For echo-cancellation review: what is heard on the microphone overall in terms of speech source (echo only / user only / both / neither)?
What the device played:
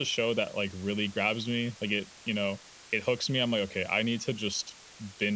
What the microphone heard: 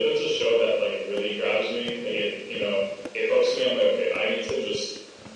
echo only